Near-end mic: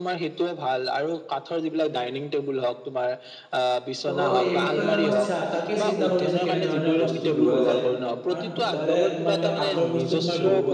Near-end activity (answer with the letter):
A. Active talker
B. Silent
A